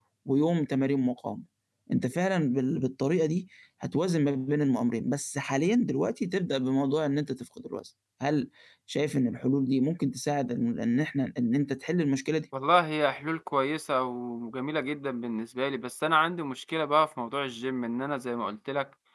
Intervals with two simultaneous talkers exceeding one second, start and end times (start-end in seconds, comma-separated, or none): none